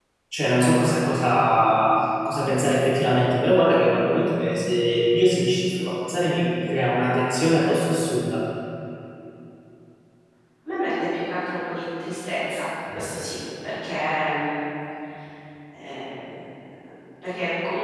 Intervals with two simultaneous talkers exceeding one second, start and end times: none

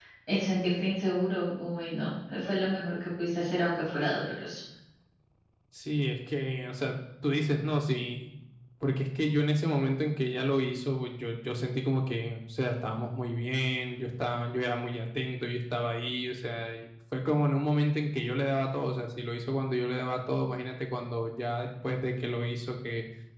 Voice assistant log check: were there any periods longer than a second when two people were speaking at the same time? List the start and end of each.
none

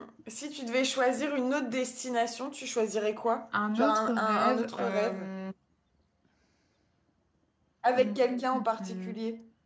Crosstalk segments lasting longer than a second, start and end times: 3.8-5.3, 7.9-9.2

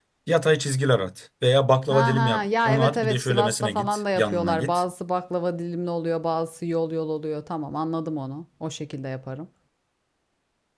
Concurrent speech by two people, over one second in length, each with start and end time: 1.9-4.8

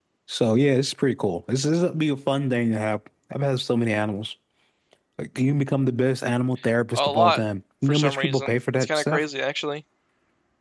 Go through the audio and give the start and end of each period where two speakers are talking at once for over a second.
7.9-9.2

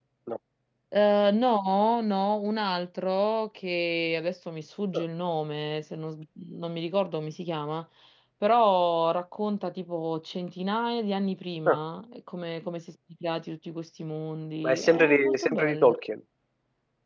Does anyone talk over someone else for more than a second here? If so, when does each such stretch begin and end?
14.6-15.9

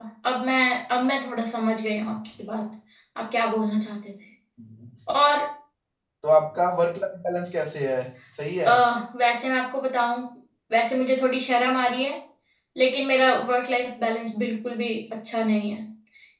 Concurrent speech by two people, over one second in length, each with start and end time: none

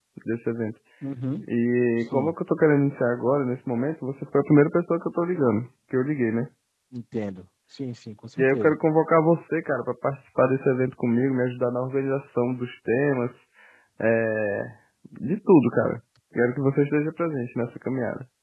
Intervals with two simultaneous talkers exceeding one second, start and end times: none

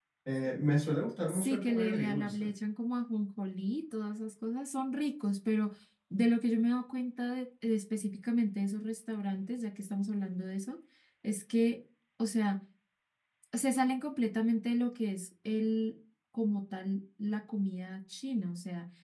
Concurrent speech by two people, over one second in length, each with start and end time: 1.3-2.5

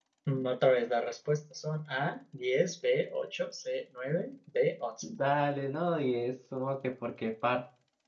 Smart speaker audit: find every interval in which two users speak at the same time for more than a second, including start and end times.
none

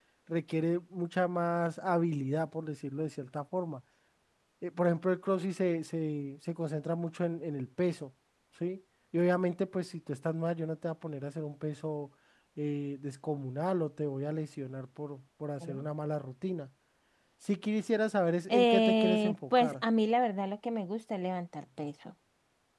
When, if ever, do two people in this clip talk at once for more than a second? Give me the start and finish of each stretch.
18.5-19.8

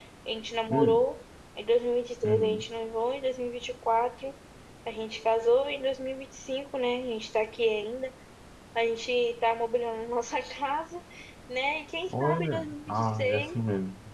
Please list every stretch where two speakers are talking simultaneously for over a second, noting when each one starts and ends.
12.1-13.5

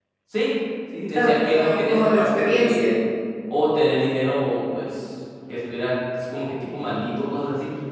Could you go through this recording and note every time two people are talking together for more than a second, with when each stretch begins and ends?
1.1-3.0

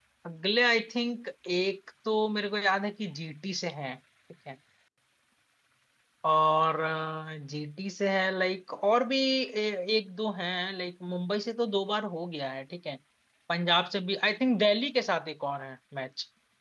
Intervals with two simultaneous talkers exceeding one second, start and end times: none

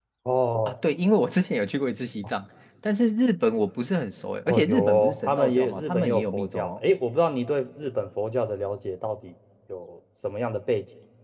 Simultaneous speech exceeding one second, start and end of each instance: 4.5-6.8

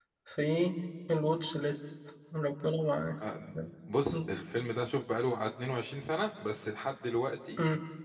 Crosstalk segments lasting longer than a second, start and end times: none

